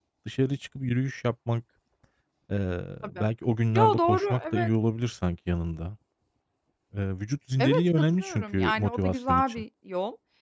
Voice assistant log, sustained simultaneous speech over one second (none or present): present